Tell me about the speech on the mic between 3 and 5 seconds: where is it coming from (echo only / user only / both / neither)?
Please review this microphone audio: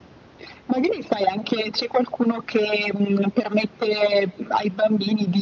echo only